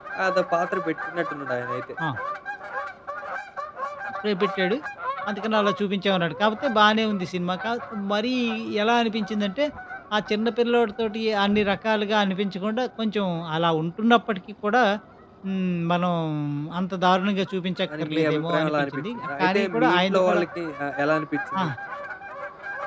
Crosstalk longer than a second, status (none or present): present